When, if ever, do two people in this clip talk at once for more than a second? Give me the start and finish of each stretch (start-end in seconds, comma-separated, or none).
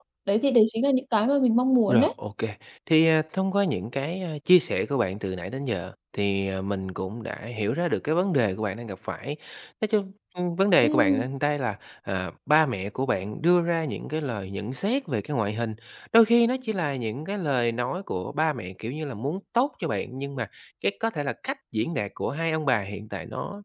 none